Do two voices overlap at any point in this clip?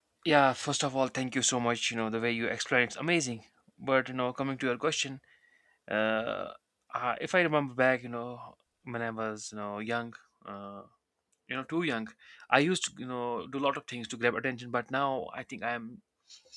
No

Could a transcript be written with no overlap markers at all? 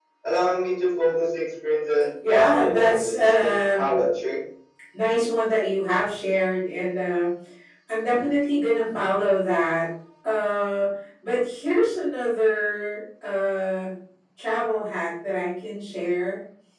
No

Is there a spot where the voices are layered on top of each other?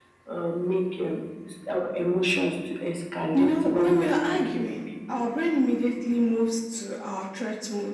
Yes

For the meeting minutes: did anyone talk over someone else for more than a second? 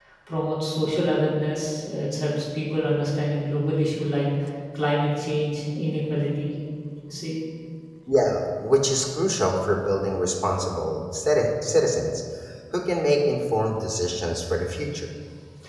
No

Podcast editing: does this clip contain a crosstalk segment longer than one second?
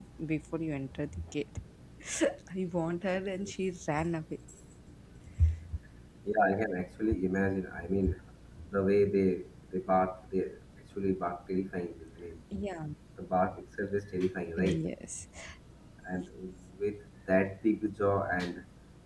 No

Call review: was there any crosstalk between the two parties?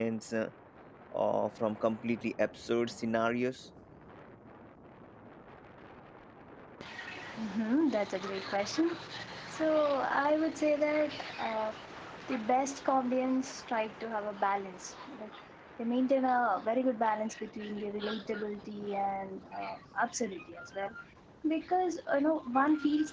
No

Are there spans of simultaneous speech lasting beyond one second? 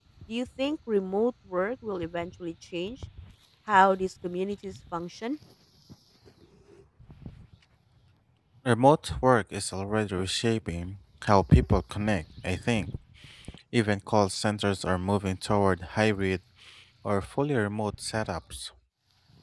No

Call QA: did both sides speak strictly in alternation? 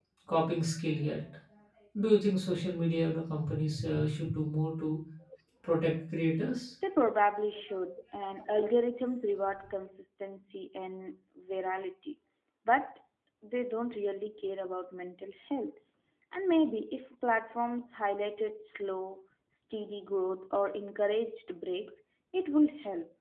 Yes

